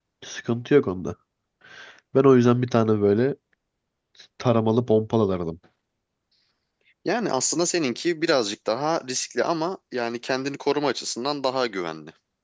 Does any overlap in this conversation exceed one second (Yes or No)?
No